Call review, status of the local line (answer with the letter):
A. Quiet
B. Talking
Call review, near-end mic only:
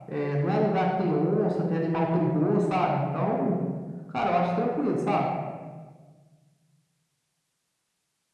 A